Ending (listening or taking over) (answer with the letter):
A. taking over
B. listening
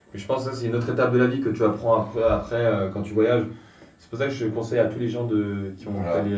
B